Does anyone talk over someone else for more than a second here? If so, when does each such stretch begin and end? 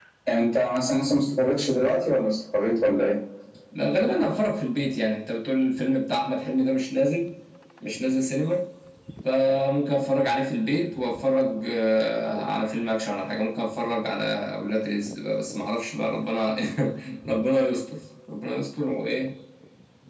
none

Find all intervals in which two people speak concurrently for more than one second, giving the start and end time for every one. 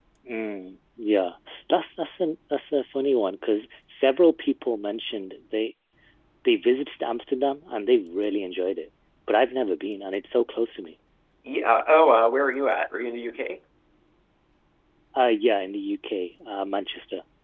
none

